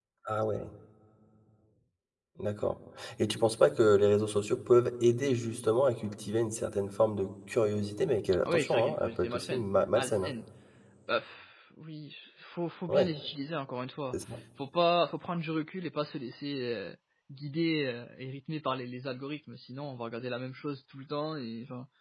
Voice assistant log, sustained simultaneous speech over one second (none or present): present